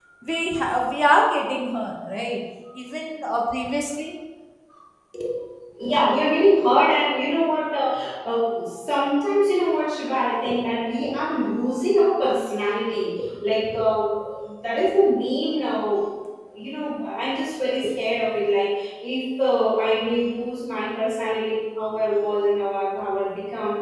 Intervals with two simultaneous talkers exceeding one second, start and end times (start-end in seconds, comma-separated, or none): none